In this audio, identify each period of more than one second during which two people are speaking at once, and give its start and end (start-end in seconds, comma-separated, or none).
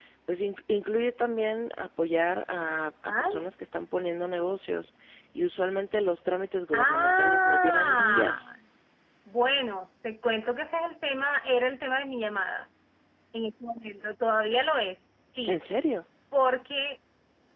6.7-8.5